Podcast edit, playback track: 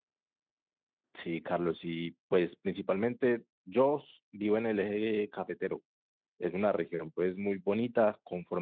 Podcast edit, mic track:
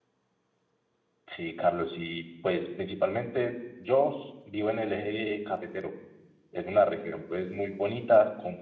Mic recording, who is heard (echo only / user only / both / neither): echo only